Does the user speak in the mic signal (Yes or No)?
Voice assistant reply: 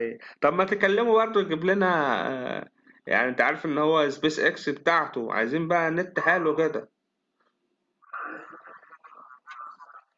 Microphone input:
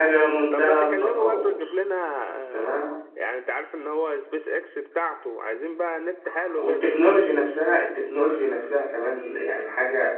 Yes